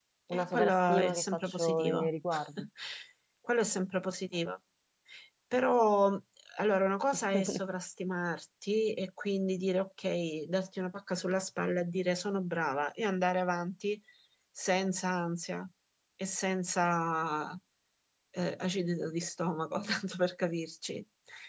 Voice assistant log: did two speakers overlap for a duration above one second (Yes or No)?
Yes